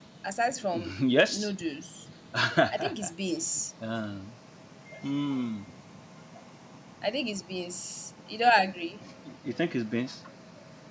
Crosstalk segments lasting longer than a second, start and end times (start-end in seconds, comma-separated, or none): none